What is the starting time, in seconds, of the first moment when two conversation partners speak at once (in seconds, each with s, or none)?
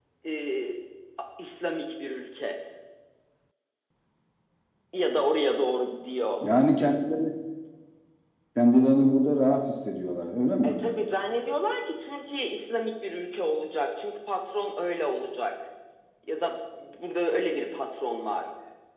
none